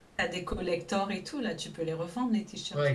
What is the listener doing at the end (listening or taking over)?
taking over